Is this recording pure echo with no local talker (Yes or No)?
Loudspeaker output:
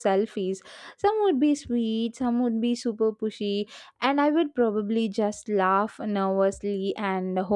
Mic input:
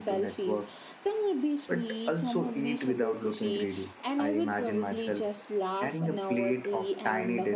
No